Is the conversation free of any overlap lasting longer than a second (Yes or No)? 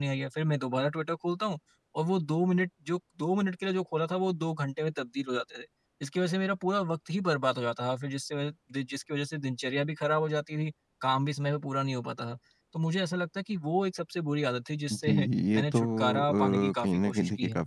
No